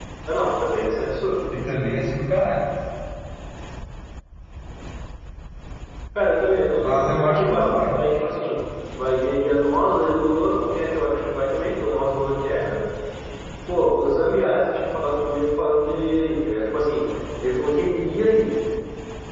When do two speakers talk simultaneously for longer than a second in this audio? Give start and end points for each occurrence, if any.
6.8-8.0

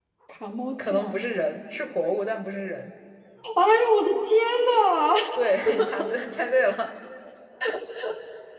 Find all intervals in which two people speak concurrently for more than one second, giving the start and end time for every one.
none

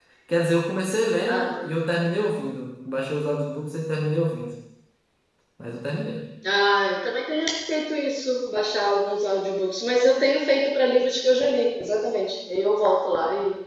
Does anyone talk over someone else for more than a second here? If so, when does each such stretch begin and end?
none

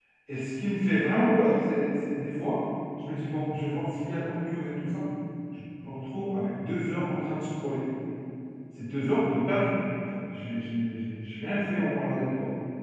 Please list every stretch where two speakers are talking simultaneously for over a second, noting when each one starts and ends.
none

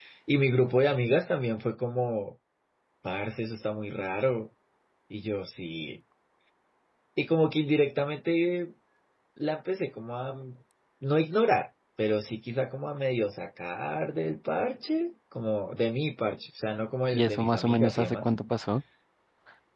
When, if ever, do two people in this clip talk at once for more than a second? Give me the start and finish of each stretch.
17.1-18.3

